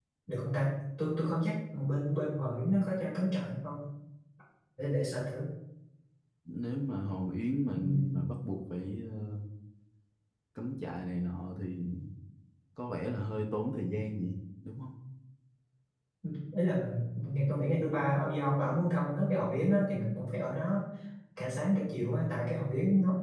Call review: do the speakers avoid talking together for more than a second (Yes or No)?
Yes